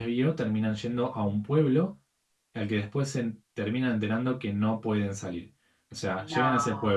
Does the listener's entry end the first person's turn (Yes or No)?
No